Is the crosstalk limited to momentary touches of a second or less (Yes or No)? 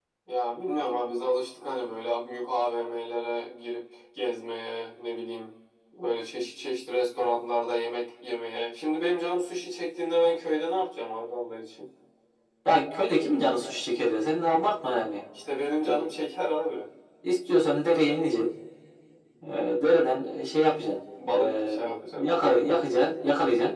No